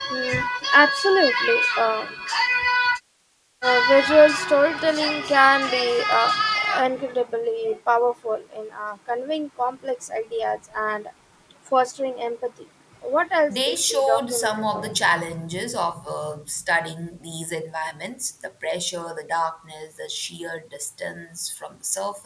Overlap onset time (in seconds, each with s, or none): 13.5 s